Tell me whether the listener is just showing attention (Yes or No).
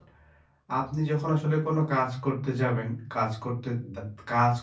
Yes